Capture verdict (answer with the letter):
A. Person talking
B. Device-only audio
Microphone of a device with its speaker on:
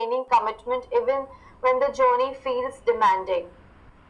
B